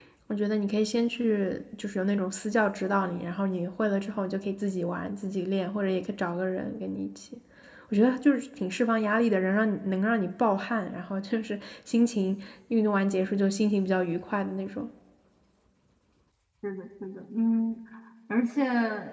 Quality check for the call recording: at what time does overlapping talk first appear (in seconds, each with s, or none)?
none